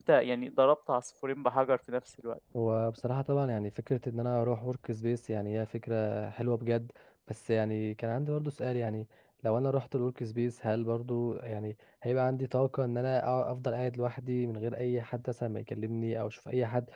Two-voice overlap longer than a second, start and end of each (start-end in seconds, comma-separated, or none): none